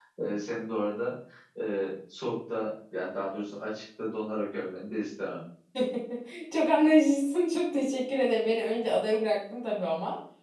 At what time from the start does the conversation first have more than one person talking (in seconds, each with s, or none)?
none